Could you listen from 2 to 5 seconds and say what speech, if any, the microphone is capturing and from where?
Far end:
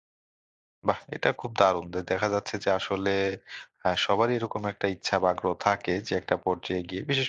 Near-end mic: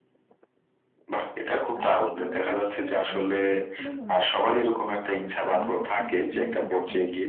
both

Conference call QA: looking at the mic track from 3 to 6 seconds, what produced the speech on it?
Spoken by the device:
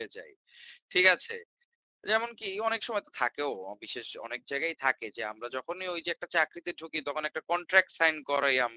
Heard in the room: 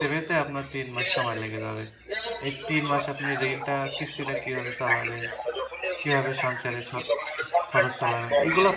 both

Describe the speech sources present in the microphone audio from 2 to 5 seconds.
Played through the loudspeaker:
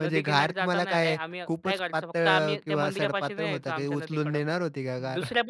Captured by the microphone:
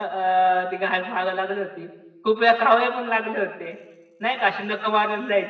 user only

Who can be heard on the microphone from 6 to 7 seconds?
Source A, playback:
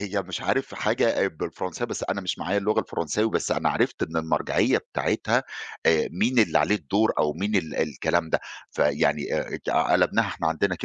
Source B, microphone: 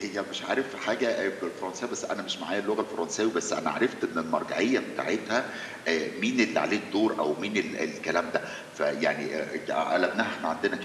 echo only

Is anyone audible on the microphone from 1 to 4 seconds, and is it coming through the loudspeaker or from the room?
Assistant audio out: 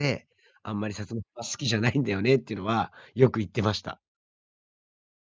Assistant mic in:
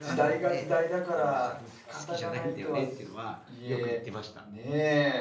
both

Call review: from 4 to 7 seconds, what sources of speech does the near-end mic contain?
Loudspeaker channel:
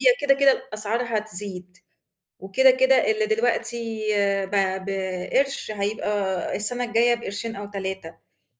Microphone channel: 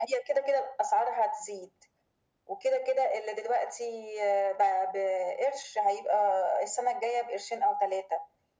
echo only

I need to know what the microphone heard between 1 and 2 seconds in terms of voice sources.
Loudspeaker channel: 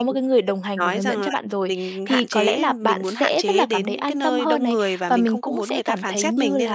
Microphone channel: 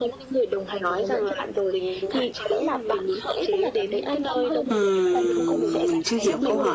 echo only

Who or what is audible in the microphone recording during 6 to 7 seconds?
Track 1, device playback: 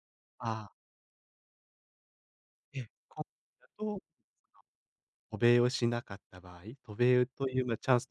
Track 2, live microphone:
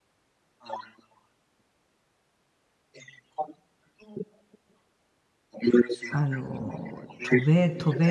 both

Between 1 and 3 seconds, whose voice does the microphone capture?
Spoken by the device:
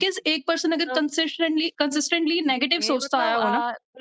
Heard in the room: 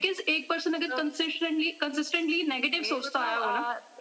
echo only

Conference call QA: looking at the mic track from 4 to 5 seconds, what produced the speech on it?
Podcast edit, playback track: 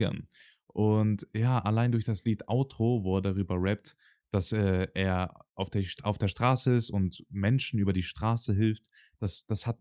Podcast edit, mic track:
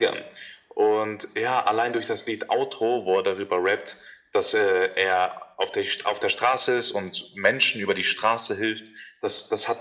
echo only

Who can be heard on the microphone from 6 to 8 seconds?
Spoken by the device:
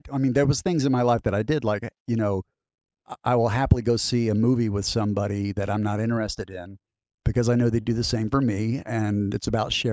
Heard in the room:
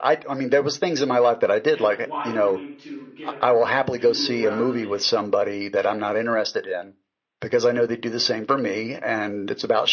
echo only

